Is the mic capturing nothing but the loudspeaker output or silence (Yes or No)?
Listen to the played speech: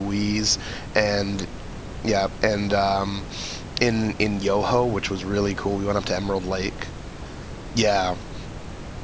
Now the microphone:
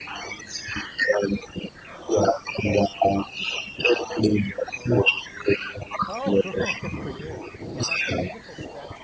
No